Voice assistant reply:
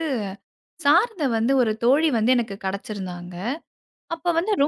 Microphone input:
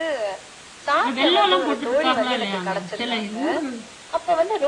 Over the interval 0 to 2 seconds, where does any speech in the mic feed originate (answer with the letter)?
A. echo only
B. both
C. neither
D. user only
B